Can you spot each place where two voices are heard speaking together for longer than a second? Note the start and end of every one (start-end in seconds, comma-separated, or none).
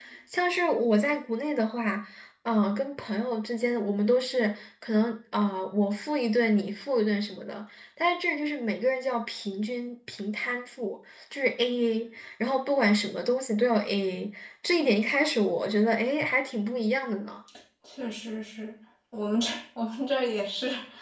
none